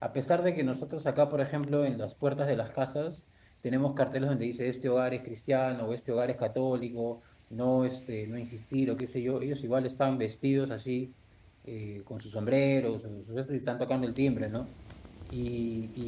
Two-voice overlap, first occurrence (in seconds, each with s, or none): none